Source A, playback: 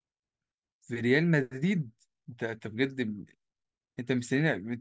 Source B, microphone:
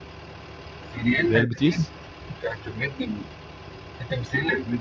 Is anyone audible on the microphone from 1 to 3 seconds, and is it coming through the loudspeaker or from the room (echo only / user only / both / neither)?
both